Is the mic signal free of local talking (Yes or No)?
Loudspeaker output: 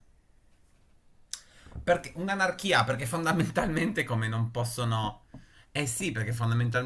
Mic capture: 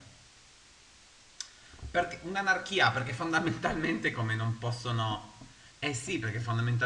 Yes